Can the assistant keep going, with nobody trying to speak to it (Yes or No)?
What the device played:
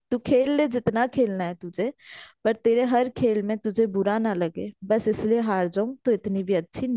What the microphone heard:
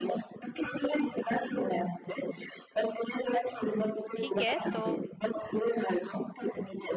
No